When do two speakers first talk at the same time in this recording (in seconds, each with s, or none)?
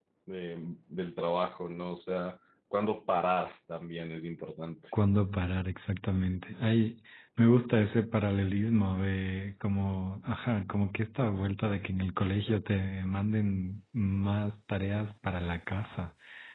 none